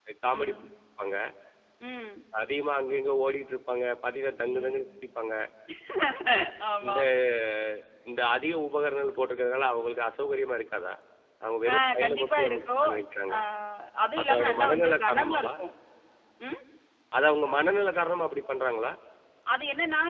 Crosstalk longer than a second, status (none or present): present